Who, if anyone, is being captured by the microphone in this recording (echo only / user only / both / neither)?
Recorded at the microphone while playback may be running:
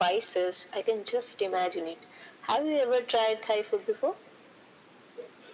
echo only